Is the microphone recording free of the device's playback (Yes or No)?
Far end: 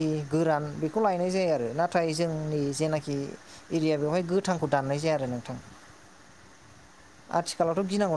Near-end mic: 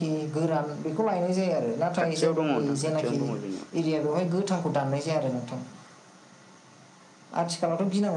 No